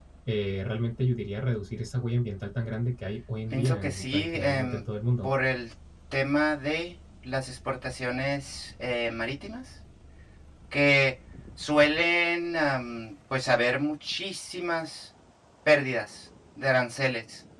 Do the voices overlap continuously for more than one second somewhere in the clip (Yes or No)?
Yes